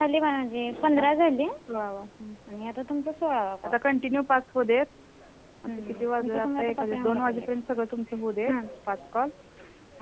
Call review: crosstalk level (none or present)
present